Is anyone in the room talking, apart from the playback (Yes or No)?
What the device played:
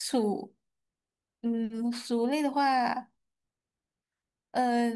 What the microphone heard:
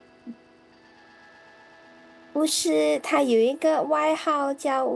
Yes